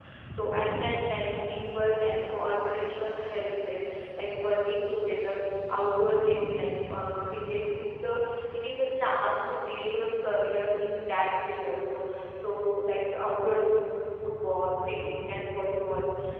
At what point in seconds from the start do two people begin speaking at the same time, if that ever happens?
none

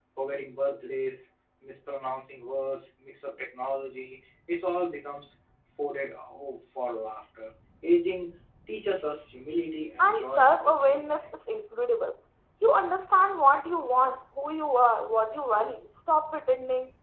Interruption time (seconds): 10.0 s

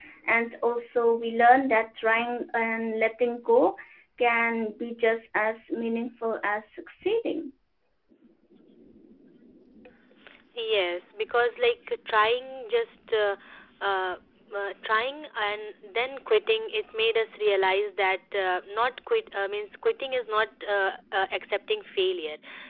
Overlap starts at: none

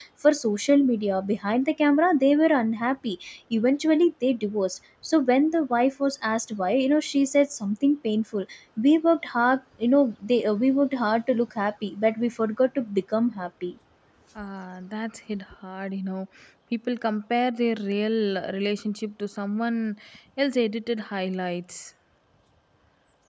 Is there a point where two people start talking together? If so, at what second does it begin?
none

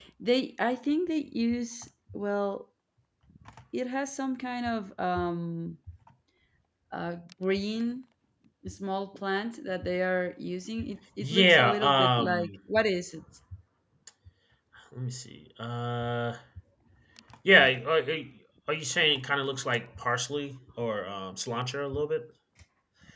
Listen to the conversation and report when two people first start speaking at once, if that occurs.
11.2 s

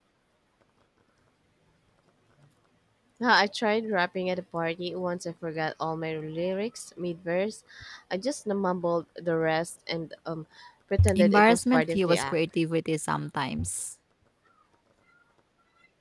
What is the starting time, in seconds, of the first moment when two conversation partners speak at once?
11.1 s

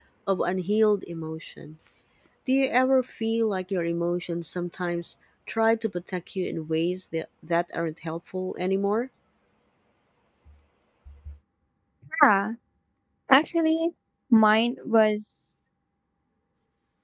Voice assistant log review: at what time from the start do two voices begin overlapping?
none

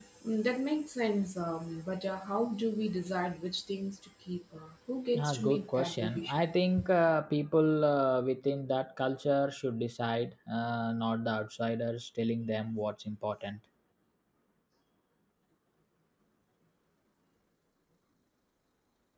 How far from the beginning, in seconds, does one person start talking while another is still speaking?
5.1 s

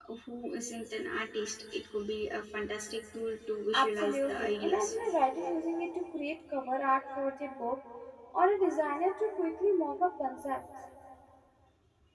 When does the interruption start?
3.7 s

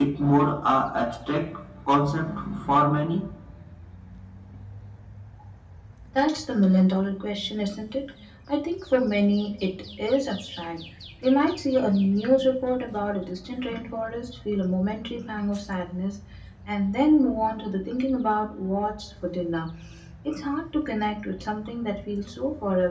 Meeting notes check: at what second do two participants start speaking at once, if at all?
none

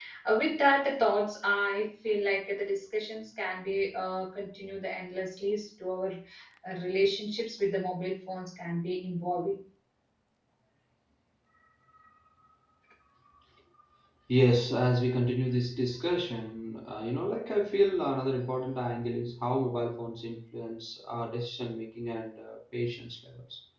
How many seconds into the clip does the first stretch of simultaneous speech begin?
none

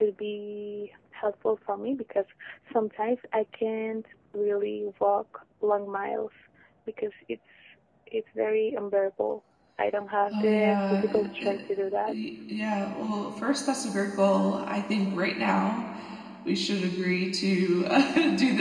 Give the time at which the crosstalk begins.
10.3 s

